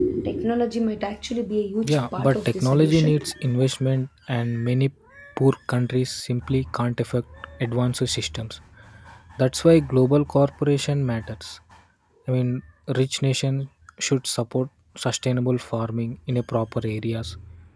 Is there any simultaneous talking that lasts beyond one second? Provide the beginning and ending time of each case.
1.8-3.3

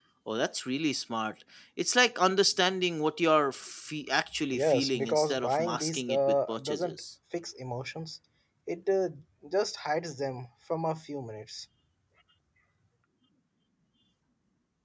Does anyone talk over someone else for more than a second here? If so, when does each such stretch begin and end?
4.5-7.0

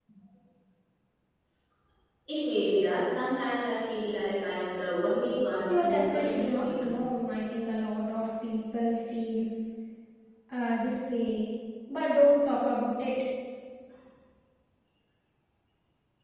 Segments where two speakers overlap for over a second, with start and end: 5.7-6.9

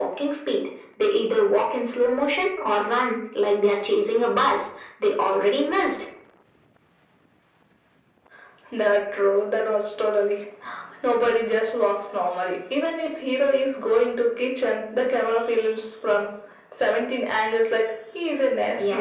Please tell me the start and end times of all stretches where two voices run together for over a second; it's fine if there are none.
none

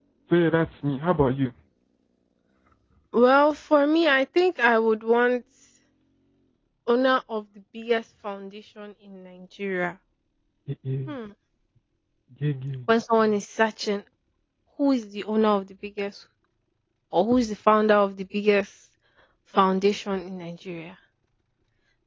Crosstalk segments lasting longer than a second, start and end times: none

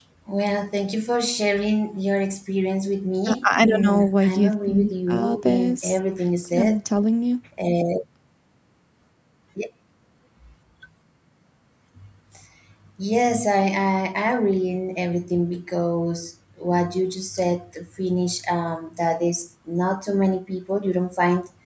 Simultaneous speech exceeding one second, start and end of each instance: 3.3-6.0

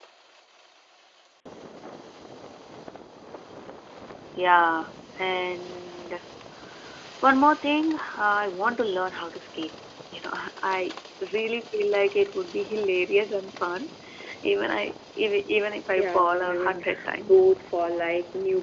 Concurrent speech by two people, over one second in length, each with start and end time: 16.0-17.5

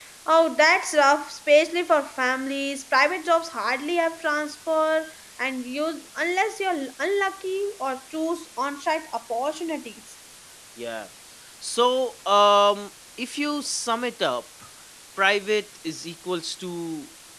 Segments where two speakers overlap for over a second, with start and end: none

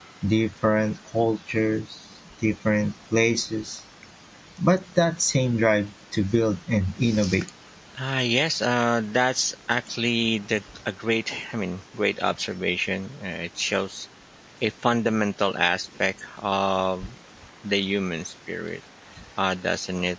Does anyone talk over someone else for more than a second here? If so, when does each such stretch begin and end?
none

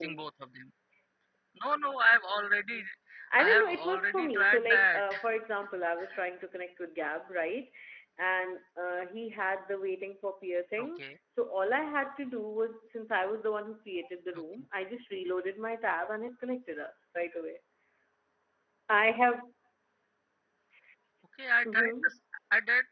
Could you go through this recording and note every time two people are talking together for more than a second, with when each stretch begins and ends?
3.4-5.0

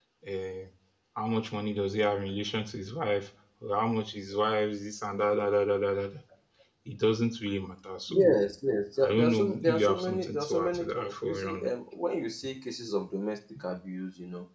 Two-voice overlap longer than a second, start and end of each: 9.0-11.7

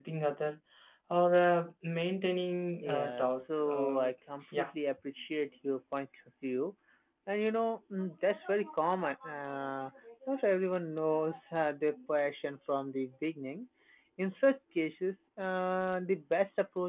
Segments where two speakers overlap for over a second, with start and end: 2.8-4.1

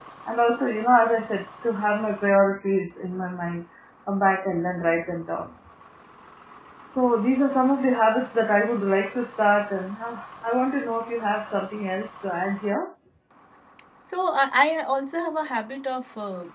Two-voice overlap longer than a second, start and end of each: none

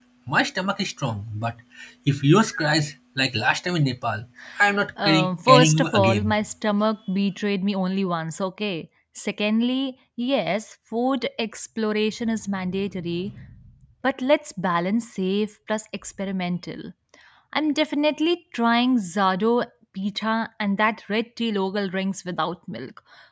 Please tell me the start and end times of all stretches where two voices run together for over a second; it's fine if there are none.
5.0-6.3

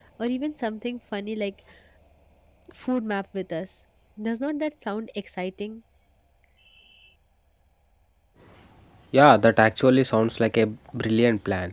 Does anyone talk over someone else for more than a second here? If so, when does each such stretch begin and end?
none

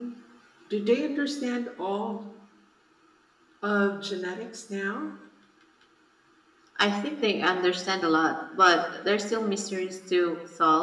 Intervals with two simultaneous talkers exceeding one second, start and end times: none

